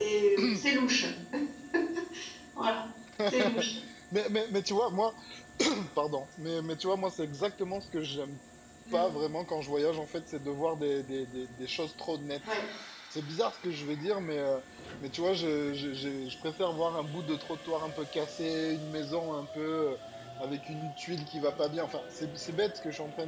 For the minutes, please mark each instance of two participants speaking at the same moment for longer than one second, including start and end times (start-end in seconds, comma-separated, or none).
none